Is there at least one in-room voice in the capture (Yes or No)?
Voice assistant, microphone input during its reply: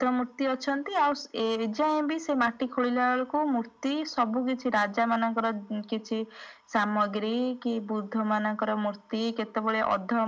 No